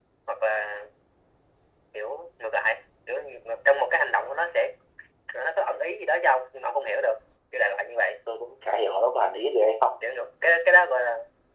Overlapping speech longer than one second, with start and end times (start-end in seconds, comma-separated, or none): none